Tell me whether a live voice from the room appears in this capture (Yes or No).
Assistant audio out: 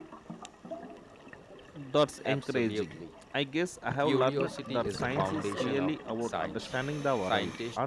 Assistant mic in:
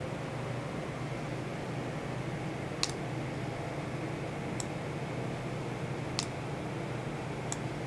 No